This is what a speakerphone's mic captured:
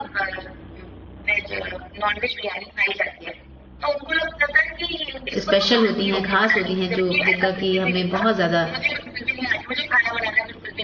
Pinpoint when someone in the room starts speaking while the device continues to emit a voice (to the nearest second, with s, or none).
5 s